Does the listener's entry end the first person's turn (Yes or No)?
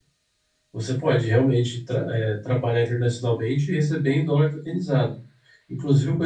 No